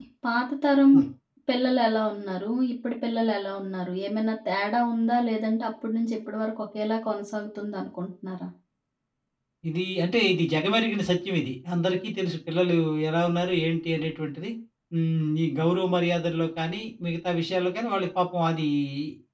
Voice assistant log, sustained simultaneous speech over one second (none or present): none